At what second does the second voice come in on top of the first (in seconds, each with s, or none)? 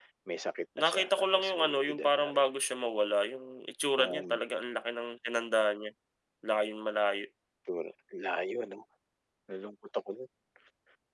0.8 s